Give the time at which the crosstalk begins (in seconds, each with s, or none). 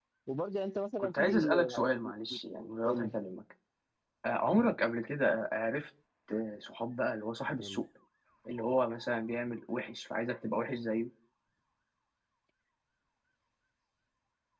1.0 s